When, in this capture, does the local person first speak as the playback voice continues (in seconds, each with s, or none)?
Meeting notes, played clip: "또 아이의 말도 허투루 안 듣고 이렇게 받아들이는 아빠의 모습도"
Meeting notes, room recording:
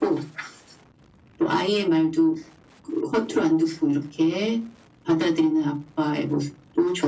none